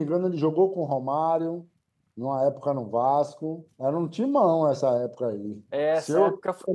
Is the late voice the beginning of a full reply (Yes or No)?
Yes